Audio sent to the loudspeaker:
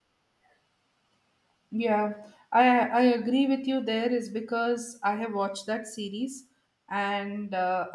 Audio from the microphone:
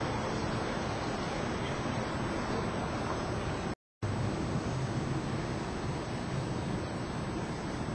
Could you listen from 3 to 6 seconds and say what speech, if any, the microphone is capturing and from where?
neither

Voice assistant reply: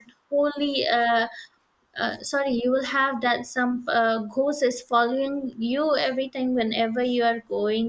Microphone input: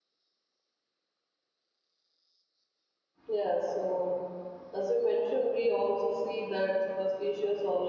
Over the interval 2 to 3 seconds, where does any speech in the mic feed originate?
neither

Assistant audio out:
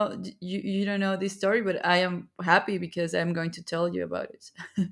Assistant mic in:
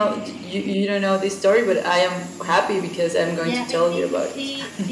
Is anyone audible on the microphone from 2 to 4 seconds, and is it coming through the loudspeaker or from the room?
both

